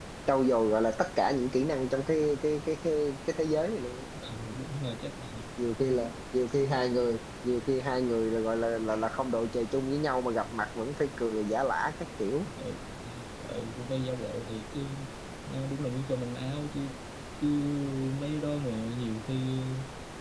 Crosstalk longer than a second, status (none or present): none